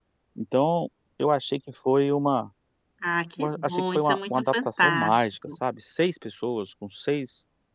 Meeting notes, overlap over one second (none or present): present